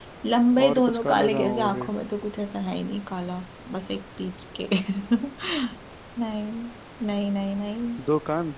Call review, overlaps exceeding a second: present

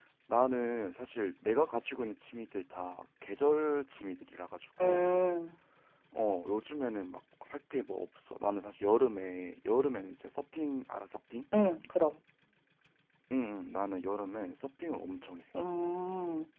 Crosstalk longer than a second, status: none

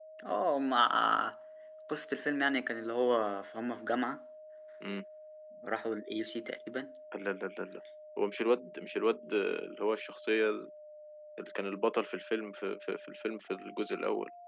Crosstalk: none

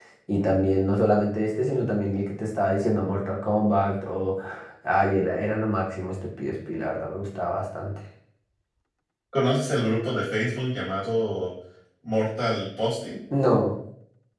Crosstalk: none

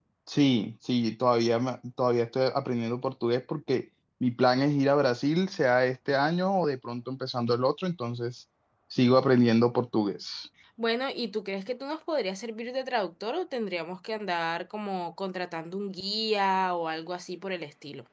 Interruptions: none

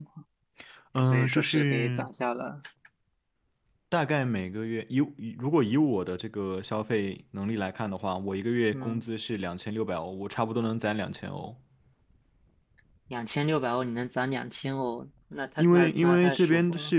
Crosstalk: present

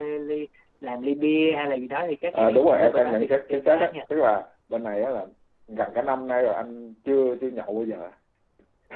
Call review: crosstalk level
present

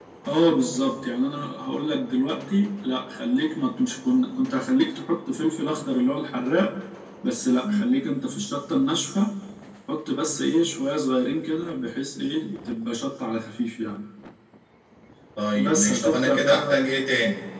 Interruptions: present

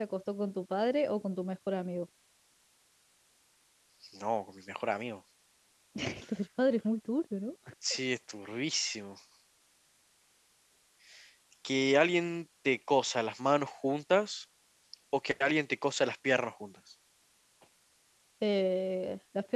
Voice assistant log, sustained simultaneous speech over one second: none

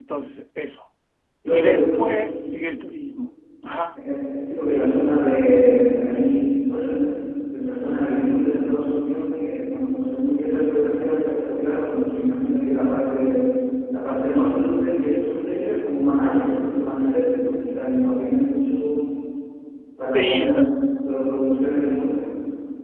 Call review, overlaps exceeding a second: none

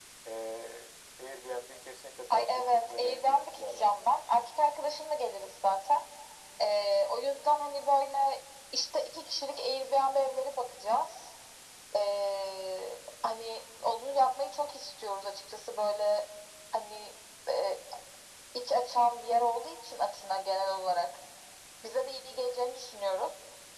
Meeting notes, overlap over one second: present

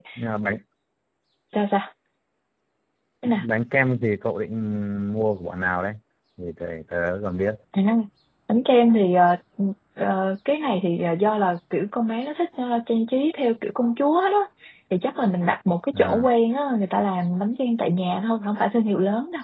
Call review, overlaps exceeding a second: none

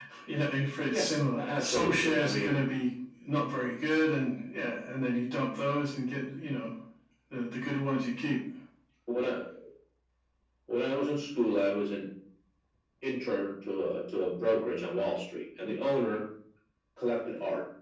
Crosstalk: present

